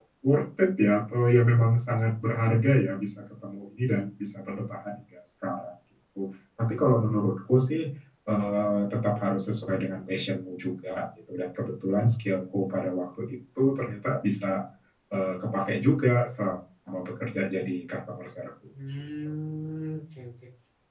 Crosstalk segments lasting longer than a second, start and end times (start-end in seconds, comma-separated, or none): none